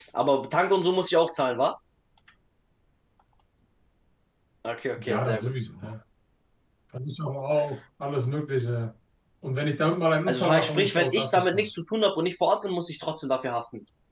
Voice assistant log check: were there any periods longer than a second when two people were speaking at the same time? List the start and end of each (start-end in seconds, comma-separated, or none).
10.3-11.7